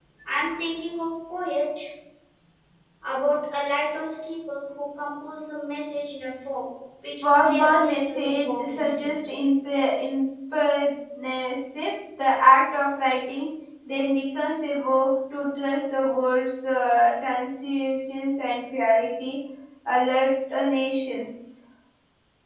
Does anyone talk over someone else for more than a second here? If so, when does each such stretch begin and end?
7.2-9.1

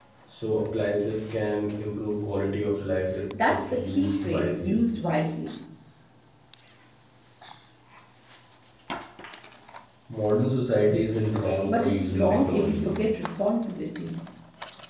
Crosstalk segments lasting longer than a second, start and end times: 3.5-4.8, 11.7-12.9

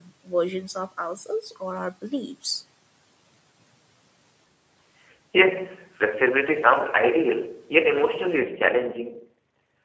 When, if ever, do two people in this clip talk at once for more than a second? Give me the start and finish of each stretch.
none

